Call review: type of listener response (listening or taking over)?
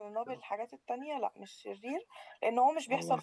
listening